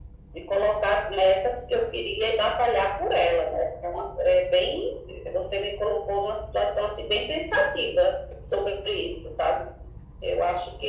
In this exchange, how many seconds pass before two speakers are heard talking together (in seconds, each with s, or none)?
none